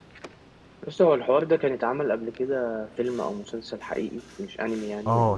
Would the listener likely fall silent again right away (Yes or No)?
No